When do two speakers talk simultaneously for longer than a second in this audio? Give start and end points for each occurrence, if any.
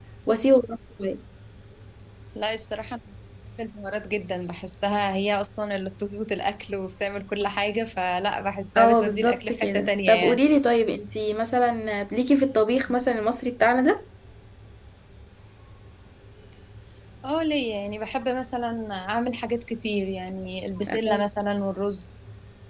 8.8-10.4

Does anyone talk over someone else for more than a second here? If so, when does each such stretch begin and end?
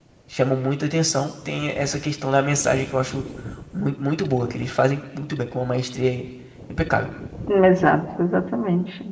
none

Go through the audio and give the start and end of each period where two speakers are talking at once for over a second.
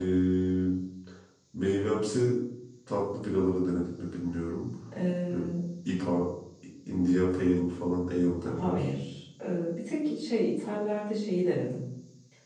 none

